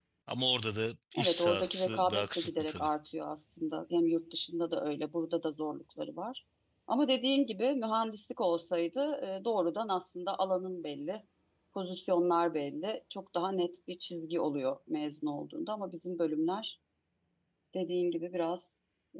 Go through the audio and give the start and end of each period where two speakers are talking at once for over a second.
1.2-2.9

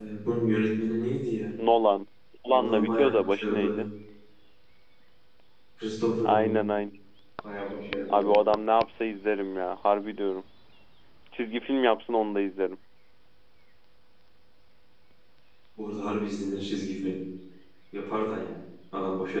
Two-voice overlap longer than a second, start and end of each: 2.5-3.8

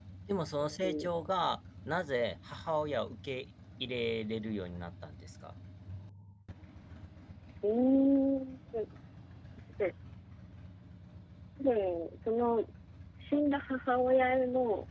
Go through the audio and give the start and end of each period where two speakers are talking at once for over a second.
none

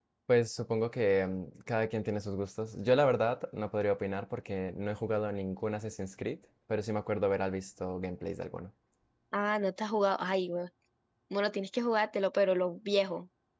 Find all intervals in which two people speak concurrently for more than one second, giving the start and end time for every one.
none

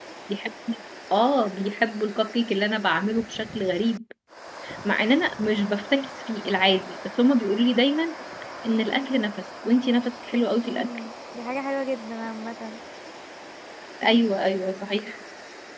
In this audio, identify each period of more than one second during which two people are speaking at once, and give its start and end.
none

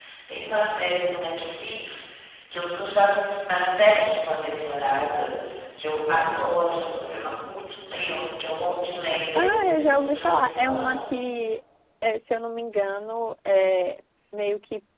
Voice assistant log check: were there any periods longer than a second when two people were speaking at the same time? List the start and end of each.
9.4-11.0

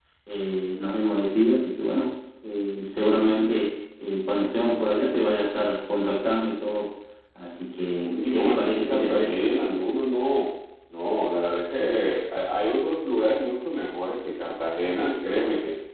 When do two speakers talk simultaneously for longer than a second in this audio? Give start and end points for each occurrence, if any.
8.0-9.3

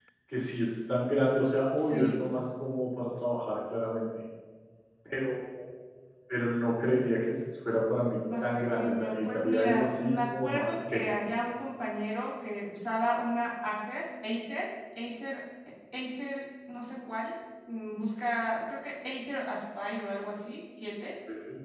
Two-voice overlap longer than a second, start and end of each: 8.4-11.1

